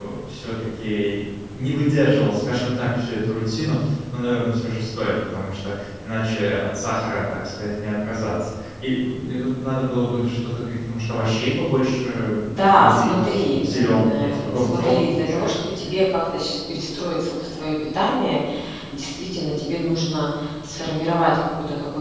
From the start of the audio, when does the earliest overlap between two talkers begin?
12.6 s

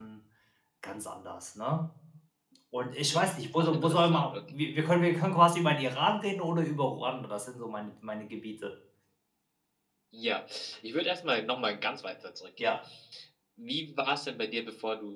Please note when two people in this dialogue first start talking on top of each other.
3.1 s

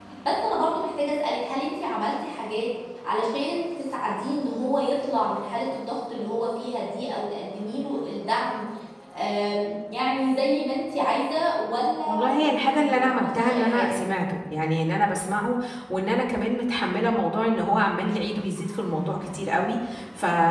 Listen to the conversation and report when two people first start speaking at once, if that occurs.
12.1 s

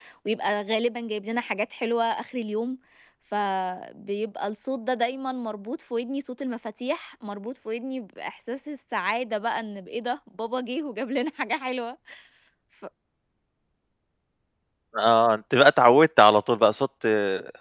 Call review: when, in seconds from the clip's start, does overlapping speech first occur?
none

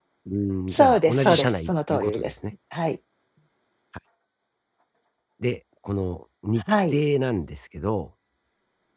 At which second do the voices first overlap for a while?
0.7 s

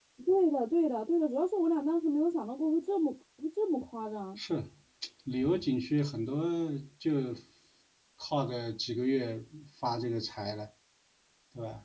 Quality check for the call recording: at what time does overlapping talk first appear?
none

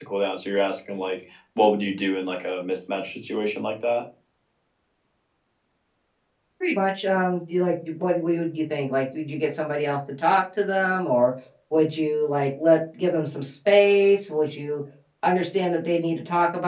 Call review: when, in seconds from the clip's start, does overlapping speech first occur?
none

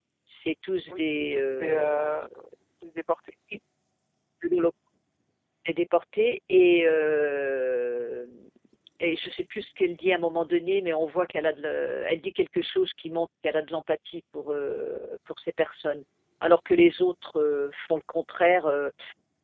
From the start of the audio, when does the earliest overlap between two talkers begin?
0.9 s

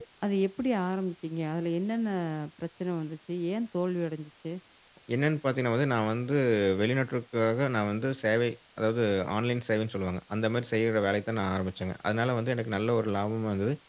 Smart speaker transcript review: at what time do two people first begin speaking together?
none

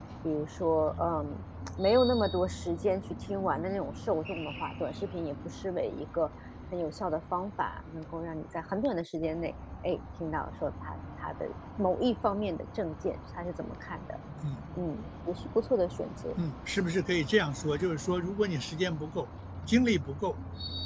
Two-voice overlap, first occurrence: none

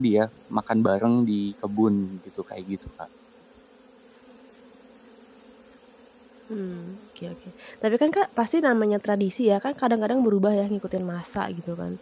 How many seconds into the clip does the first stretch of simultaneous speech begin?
none

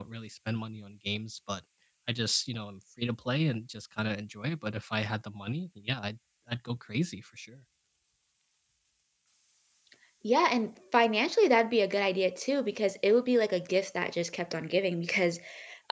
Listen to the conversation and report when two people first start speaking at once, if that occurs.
none

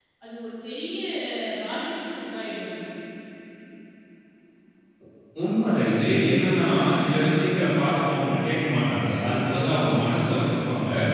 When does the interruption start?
none

